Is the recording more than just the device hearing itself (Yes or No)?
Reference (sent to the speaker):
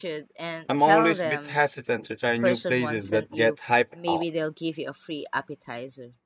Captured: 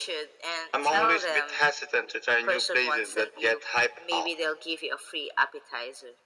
No